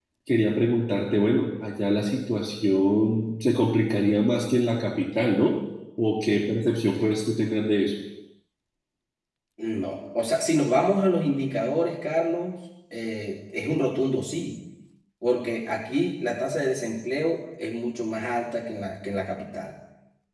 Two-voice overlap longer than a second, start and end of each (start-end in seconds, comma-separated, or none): none